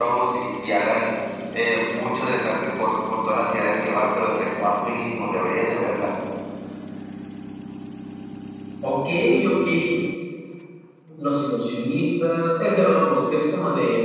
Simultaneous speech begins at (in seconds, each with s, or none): none